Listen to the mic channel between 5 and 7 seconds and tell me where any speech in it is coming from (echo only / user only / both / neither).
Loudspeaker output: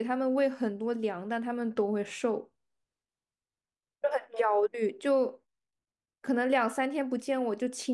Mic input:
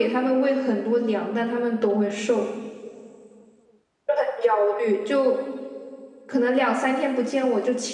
echo only